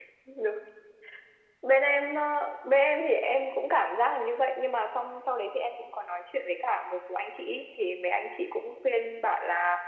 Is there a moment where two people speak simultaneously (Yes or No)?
No